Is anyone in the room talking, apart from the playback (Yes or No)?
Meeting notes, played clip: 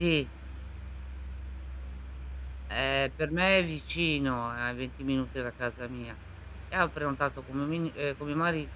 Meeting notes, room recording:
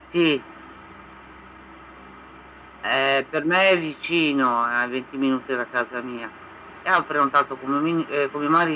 No